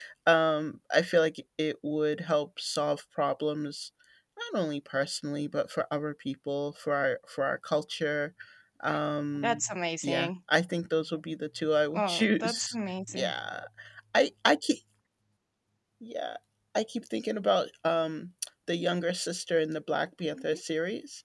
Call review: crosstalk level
present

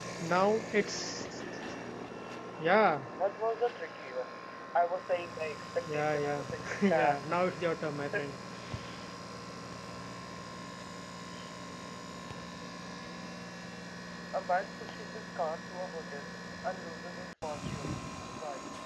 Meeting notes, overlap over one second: present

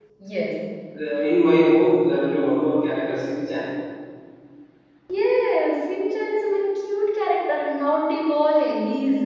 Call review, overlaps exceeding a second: none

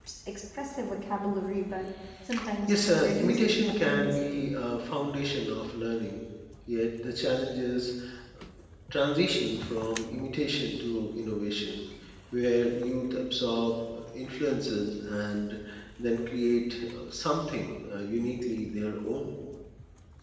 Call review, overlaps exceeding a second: present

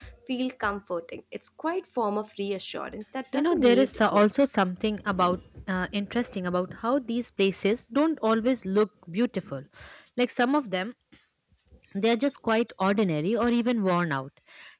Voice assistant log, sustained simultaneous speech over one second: present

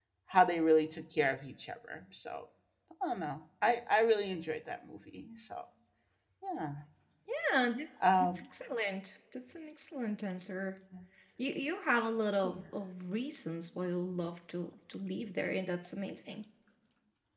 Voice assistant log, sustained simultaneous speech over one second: none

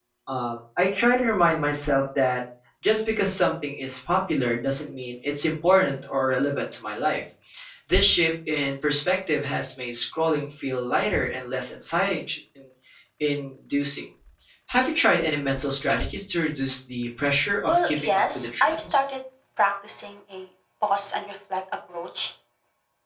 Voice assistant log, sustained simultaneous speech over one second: present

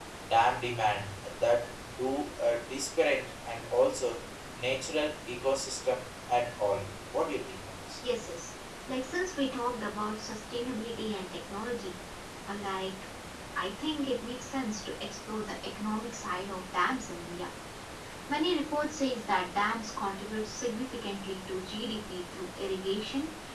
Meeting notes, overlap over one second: none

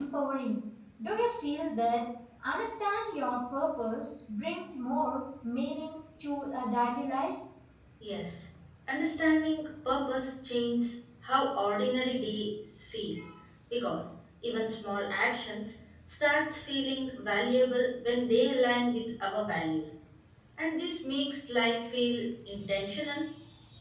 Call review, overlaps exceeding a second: none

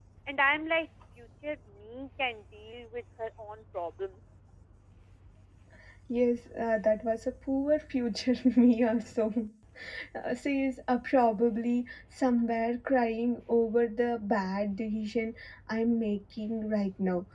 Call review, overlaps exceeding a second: none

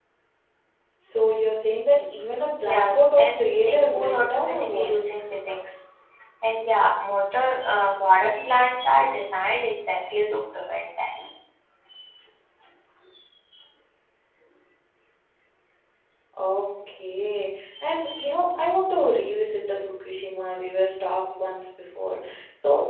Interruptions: present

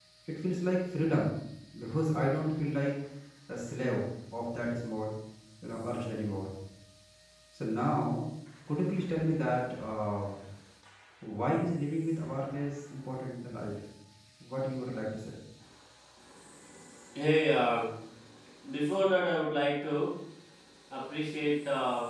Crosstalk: none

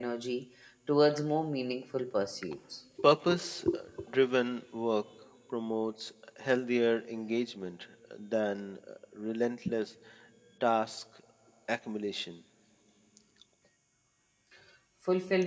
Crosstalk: none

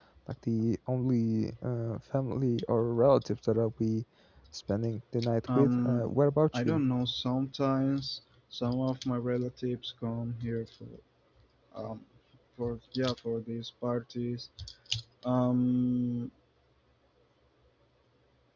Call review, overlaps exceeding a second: none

